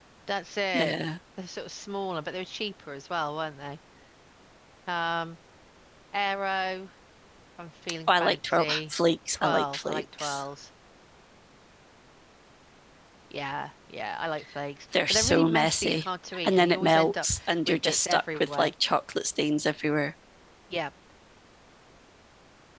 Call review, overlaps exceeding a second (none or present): present